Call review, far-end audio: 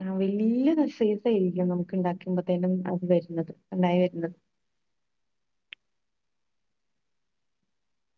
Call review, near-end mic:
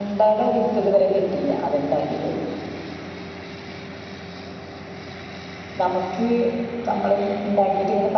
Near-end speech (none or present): present